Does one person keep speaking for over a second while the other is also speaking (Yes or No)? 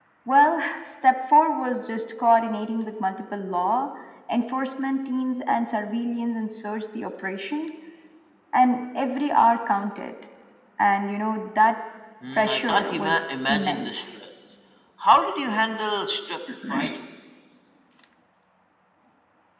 Yes